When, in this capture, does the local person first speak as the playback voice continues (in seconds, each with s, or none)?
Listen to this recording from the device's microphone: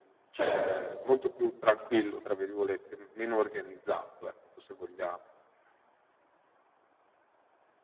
0.3 s